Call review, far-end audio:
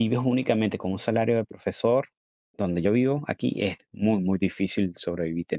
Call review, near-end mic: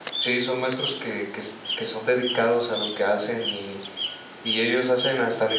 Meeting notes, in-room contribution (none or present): present